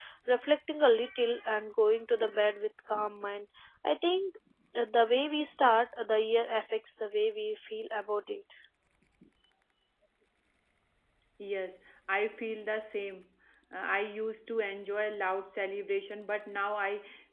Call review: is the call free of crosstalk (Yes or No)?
Yes